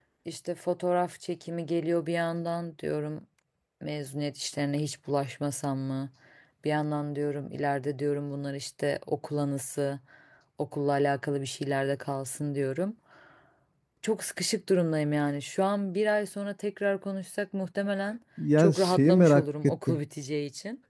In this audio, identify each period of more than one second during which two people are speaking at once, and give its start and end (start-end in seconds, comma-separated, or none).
18.6-20.0